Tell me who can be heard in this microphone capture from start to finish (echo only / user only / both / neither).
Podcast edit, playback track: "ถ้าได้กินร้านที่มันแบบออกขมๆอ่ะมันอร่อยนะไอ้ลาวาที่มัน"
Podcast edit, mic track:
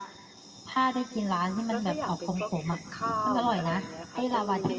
both